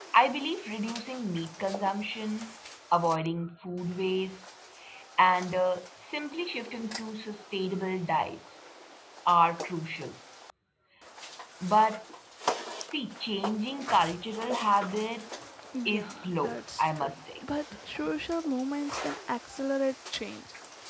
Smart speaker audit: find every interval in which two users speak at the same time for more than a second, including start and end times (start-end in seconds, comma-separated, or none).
15.8-17.2